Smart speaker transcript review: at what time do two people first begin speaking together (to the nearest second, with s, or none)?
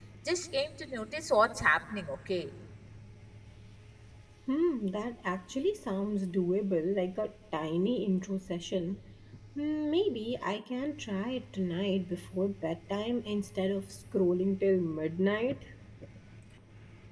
none